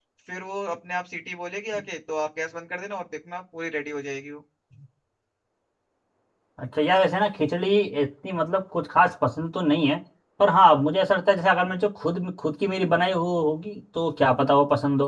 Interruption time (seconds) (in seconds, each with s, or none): none